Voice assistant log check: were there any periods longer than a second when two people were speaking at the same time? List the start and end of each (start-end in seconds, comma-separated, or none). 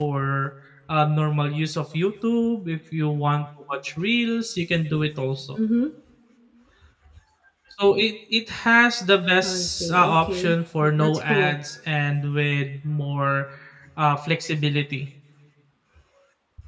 9.4-11.6